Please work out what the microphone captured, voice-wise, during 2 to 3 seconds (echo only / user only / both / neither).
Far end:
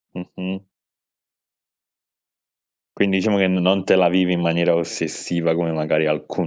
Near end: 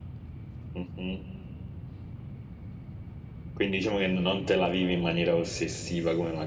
neither